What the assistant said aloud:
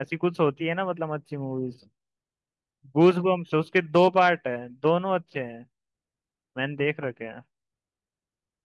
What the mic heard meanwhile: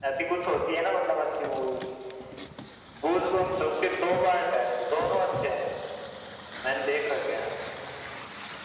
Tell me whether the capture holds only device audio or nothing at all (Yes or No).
Yes